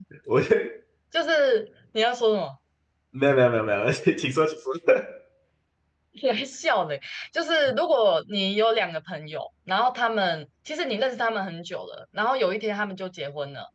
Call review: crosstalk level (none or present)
none